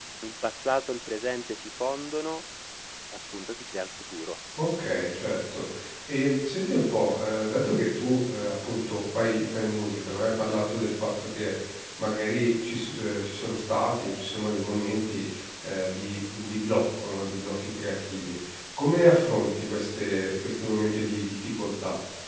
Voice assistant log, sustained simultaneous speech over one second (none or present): none